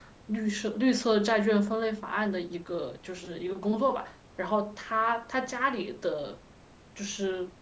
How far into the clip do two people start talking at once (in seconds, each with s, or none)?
none